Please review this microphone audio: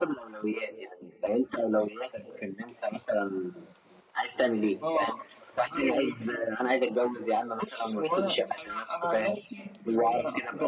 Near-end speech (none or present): none